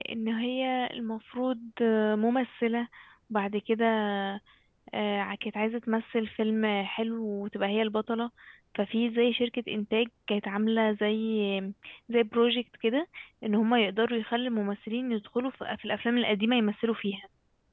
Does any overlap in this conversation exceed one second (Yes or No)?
No